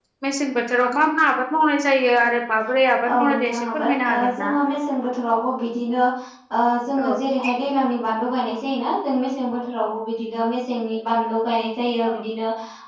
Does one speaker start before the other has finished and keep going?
Yes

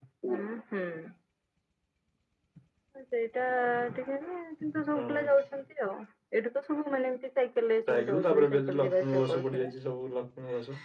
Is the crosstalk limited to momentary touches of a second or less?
No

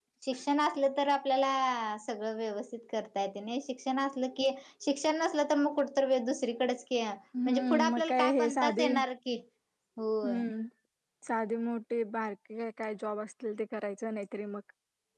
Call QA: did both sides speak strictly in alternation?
No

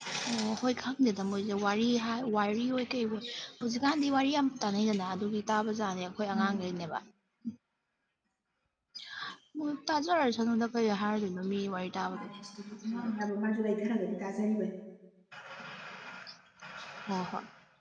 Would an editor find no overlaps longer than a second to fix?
Yes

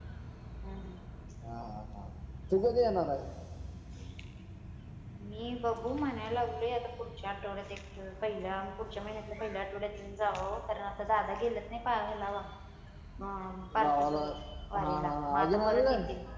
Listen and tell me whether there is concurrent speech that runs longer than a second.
Yes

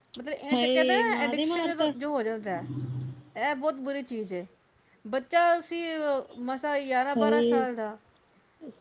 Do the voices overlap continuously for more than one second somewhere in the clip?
Yes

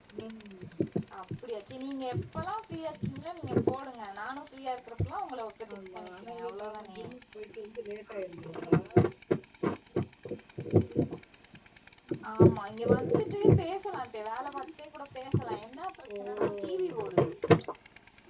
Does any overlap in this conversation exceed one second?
Yes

